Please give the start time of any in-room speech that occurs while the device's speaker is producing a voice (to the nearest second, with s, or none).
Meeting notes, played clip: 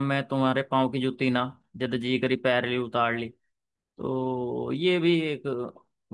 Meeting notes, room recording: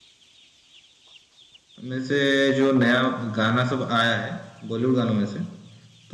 2 s